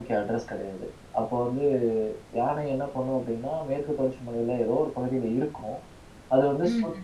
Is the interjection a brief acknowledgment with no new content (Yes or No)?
Yes